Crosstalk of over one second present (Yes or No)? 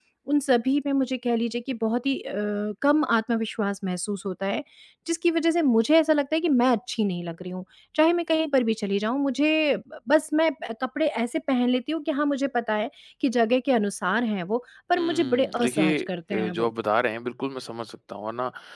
Yes